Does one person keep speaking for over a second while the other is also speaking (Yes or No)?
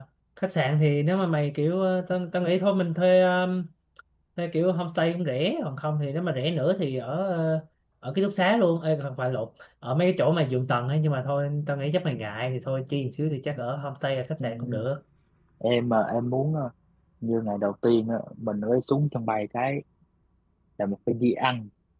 No